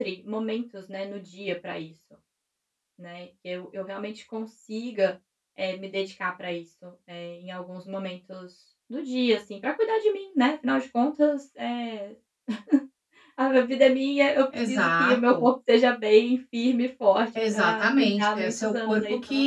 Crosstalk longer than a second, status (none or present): present